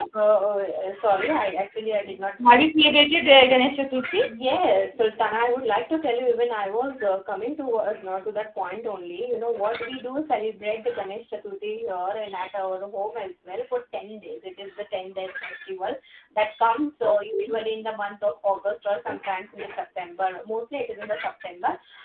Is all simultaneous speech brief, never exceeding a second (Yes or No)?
Yes